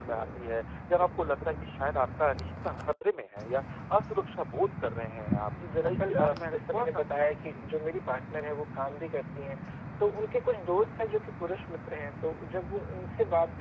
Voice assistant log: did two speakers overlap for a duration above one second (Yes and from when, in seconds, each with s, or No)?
Yes, from 5.8 s